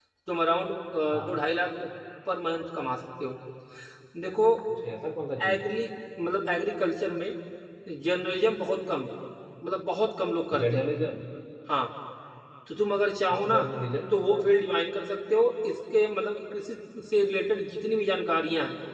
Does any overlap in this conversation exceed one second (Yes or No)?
No